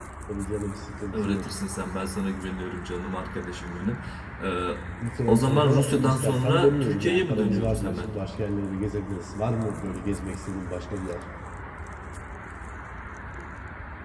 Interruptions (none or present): present